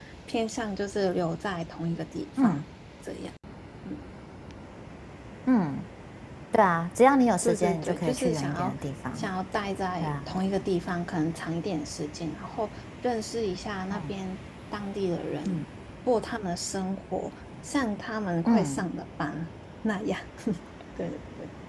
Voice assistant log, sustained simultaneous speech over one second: present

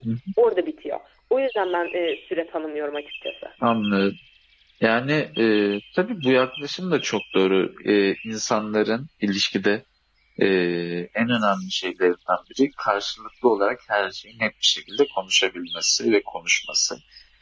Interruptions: none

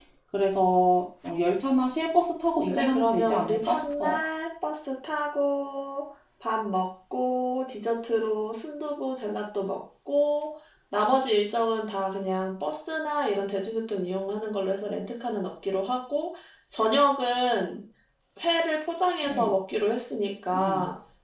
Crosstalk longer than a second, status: present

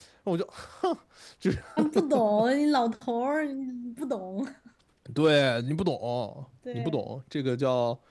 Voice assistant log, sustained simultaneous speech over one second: none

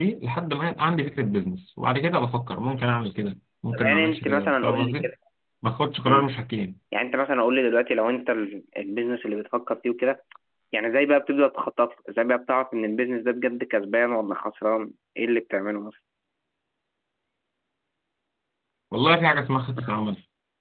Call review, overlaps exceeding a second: present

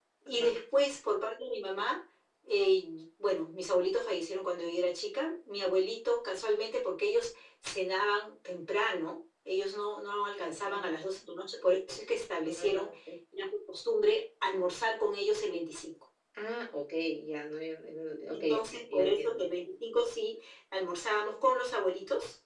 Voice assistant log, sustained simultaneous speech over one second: present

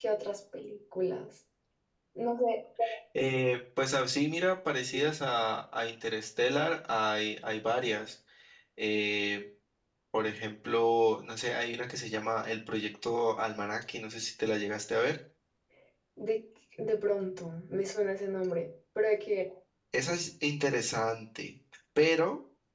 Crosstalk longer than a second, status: none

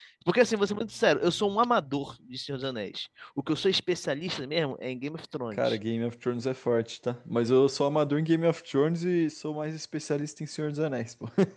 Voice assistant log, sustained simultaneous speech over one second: none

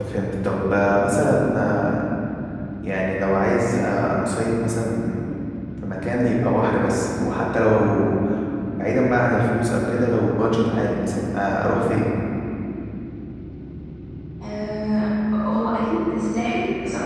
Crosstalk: none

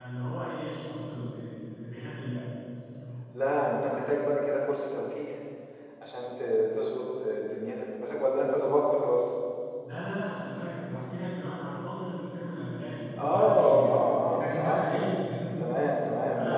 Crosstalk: present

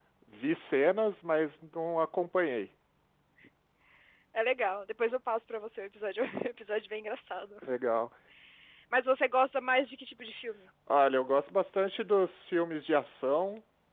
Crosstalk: none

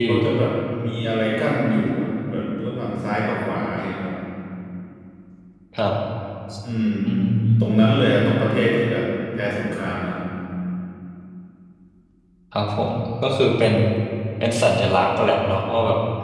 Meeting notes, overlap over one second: none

